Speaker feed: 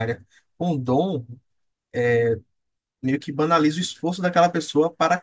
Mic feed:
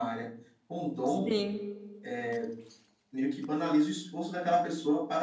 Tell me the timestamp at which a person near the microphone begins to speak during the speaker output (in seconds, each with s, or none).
1.0 s